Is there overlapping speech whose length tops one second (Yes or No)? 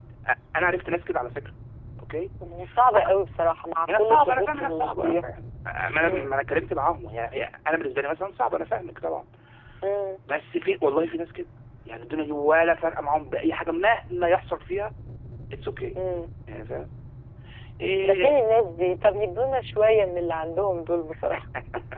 Yes